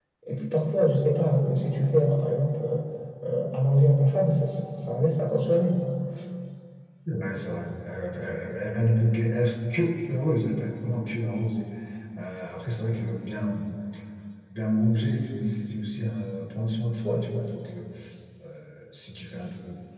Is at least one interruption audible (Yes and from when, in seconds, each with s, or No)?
No